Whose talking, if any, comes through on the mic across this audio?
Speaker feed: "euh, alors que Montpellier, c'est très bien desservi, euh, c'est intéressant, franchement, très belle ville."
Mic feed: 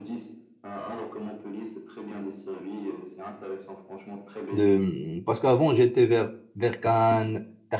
both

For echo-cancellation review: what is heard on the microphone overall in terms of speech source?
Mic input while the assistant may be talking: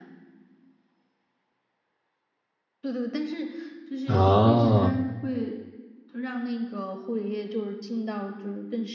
both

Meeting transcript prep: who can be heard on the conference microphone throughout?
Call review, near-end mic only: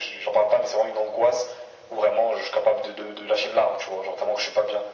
echo only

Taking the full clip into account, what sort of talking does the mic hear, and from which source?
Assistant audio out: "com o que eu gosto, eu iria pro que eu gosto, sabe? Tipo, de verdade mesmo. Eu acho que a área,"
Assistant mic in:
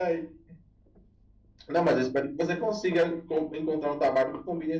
user only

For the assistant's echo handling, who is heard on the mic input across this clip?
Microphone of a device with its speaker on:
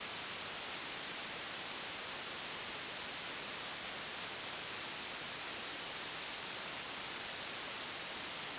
neither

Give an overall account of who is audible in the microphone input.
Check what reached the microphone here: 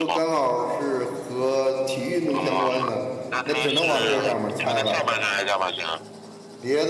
both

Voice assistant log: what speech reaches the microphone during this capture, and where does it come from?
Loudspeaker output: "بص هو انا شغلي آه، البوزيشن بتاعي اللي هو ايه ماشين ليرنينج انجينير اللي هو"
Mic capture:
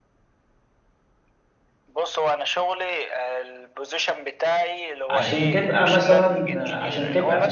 both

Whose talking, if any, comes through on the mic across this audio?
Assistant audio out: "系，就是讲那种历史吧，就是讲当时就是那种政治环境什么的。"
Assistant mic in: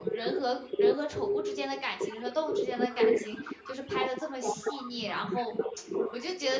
both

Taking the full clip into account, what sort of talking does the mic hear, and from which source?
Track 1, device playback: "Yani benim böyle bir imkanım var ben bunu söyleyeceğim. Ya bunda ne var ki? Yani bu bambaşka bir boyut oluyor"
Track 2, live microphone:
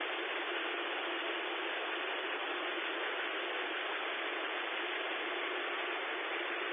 neither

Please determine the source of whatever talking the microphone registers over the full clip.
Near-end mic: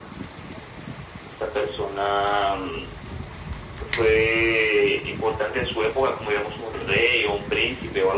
echo only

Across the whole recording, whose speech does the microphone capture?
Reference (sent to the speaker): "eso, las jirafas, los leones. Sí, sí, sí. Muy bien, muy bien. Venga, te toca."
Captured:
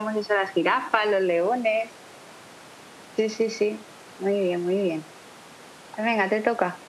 echo only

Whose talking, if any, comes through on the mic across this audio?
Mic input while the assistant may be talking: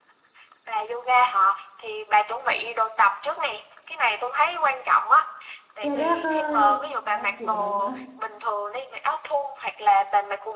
both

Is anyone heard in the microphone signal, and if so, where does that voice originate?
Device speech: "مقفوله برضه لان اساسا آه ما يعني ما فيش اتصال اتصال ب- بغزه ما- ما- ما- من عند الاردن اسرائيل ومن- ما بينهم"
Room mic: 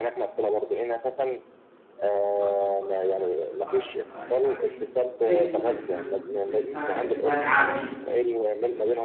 both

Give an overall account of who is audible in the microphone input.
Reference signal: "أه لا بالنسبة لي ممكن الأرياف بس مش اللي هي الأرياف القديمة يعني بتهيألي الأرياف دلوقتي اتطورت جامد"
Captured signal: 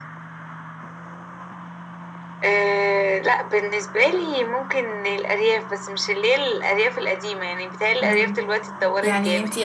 both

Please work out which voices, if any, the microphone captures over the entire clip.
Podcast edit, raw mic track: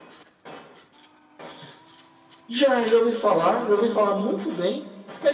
echo only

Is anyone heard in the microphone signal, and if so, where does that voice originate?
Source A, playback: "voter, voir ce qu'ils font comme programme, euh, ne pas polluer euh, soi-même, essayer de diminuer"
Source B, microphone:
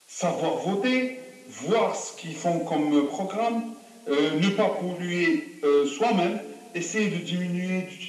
echo only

